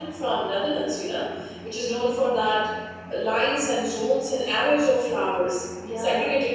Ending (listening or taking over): listening